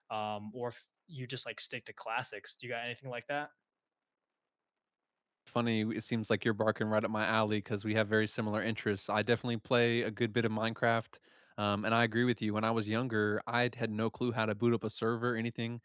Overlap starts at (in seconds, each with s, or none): none